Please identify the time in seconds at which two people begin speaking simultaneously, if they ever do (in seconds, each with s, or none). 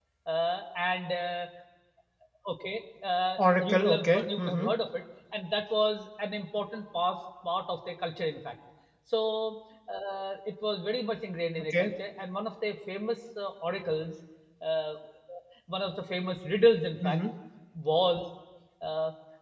3.4 s